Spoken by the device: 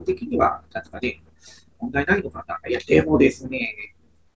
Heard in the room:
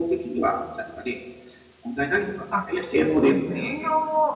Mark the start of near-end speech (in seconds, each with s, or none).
2.5 s